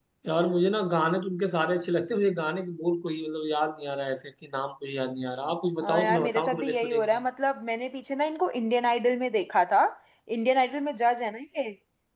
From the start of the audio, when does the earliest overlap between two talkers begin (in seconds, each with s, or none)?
5.8 s